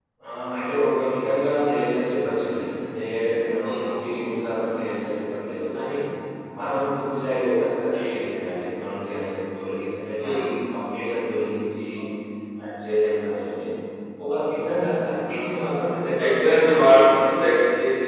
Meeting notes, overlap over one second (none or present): present